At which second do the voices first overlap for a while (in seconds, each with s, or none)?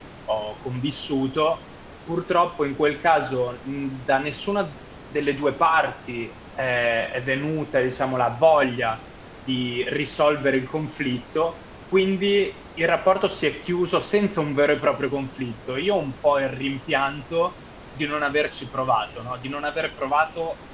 none